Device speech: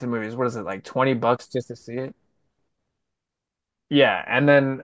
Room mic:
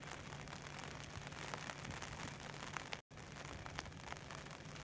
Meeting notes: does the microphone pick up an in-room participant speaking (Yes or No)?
No